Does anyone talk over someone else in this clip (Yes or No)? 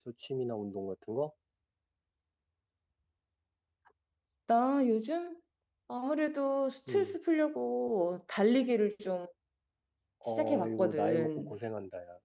Yes